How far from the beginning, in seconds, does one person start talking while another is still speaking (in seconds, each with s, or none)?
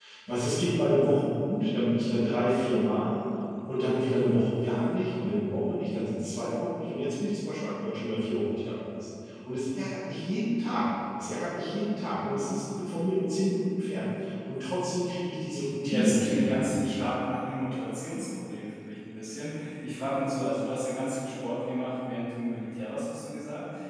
15.9 s